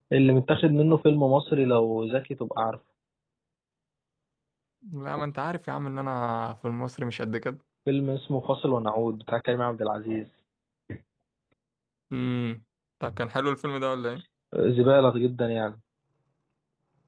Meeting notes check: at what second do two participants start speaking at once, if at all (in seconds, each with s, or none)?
none